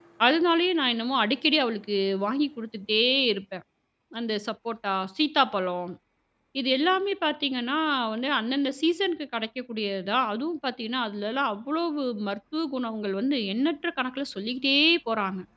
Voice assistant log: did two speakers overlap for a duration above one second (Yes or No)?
No